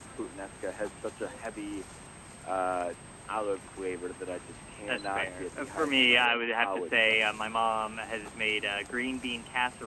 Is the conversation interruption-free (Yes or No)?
No